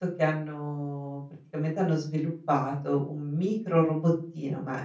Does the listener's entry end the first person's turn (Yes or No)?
No